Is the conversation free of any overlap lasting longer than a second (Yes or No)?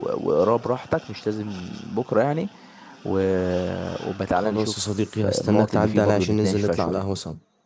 No